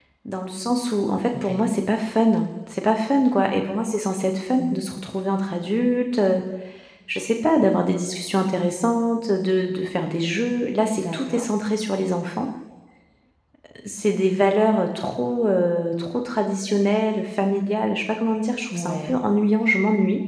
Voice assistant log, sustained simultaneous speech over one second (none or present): none